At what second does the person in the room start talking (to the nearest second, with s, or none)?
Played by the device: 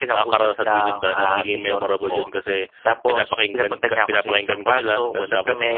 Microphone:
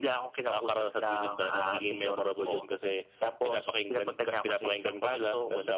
none